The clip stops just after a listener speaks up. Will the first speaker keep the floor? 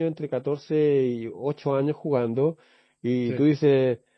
Yes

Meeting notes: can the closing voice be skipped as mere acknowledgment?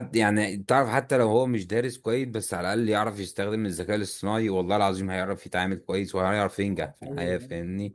No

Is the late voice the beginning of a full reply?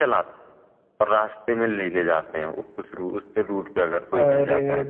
Yes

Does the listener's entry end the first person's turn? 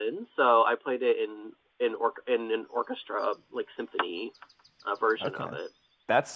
Yes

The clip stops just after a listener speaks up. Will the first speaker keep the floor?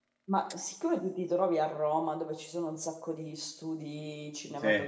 Yes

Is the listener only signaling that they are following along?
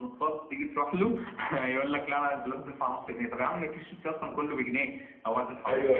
No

